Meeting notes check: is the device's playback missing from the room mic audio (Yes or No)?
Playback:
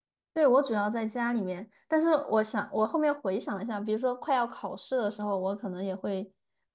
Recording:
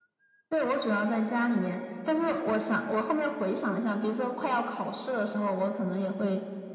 No